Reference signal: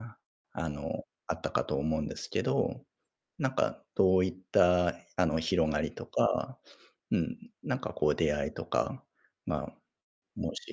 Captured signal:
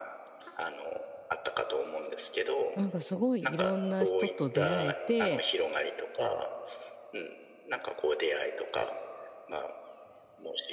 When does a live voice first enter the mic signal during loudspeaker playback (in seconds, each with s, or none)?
2.7 s